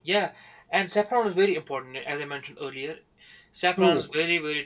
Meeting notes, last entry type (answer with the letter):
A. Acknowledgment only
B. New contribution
A